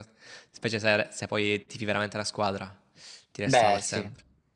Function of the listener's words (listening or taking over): taking over